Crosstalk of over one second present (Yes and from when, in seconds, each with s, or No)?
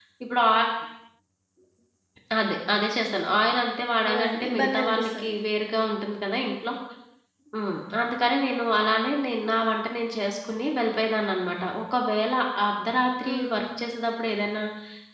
Yes, from 4.1 s